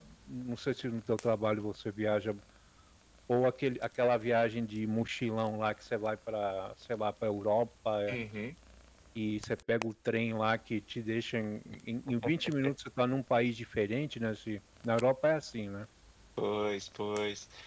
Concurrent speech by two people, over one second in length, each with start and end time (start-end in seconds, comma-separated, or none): none